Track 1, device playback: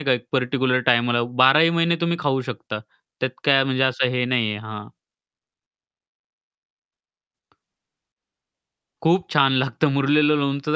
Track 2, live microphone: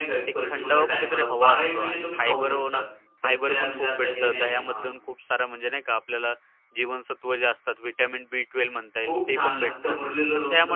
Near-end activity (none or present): present